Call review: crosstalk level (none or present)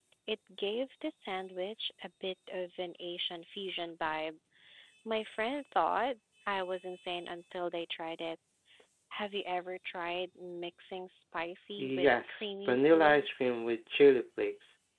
present